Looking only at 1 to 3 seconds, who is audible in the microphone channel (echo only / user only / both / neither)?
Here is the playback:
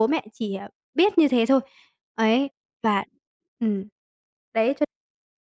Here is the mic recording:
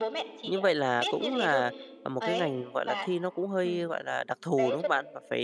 both